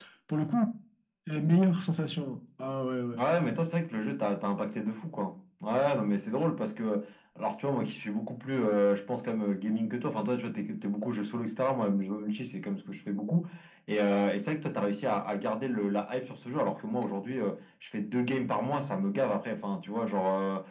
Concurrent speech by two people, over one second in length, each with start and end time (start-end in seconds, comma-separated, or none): none